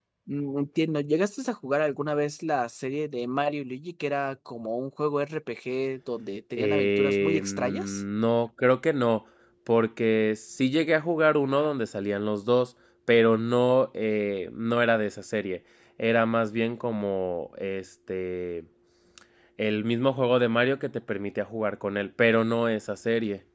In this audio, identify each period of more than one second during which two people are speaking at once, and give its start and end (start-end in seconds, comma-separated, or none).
6.6-8.0